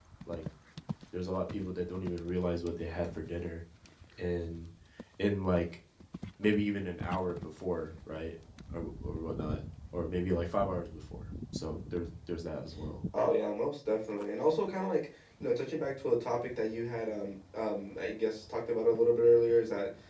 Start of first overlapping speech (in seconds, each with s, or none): none